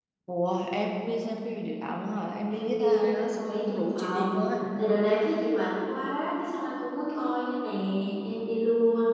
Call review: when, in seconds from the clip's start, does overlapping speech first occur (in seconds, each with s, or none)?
2.5 s